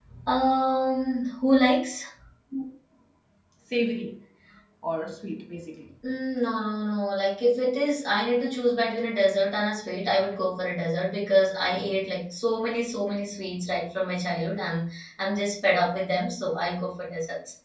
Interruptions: none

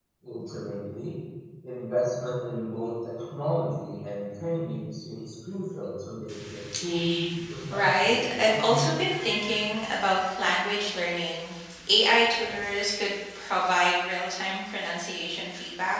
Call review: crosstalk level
present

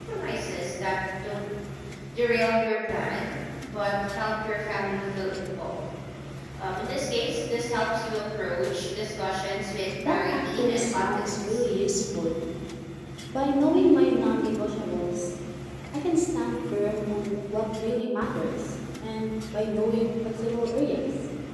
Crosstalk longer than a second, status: present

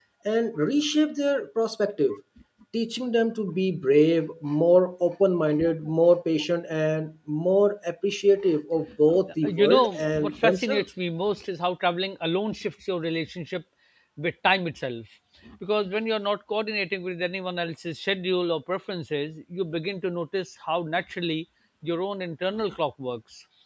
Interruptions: present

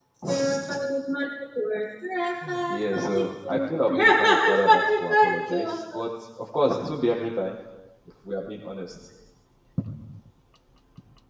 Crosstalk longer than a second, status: present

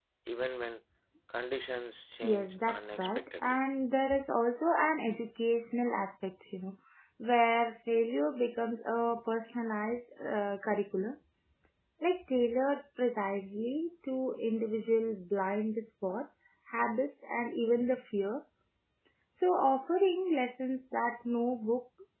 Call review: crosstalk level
present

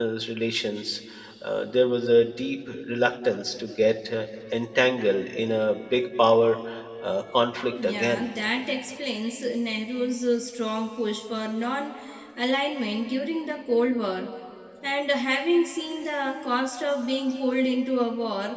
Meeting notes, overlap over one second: none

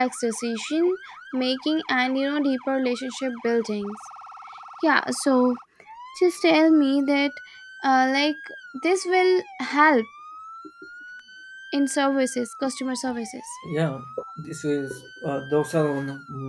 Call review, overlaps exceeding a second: none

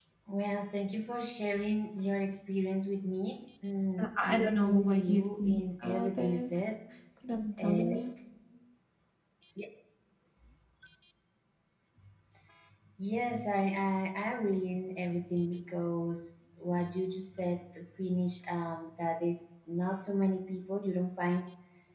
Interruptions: present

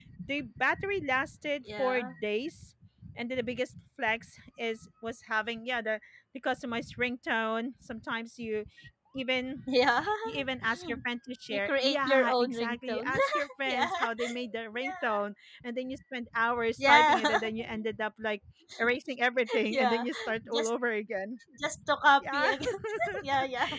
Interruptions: present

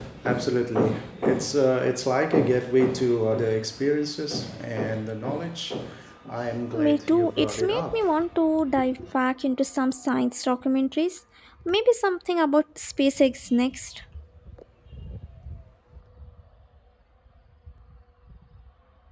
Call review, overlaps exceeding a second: present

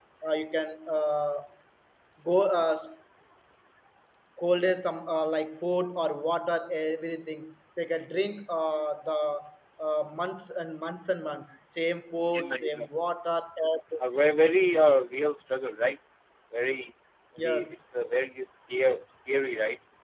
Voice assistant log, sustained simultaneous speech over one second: none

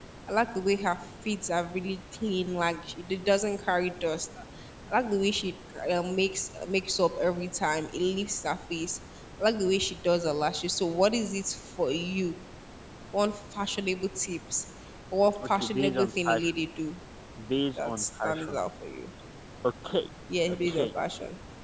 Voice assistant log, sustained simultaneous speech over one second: present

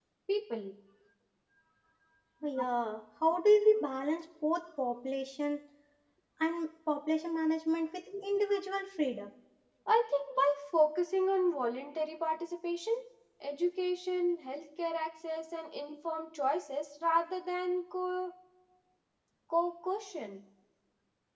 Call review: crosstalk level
none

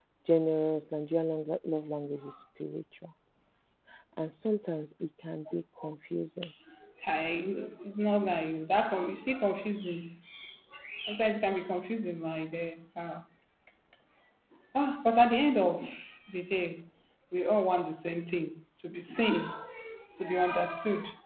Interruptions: none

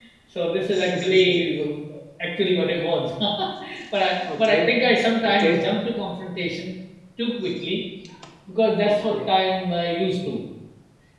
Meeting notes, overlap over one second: none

